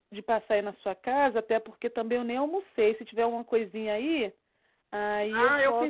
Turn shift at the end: Yes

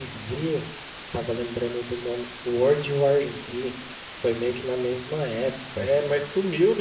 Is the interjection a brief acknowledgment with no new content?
No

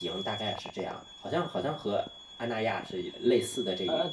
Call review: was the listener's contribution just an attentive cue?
No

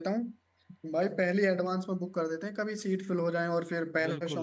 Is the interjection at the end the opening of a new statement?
Yes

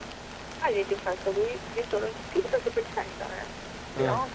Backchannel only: Yes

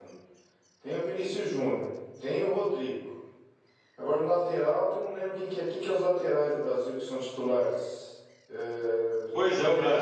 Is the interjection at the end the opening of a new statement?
Yes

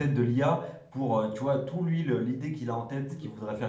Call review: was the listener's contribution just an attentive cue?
Yes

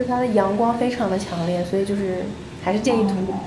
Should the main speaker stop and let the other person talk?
Yes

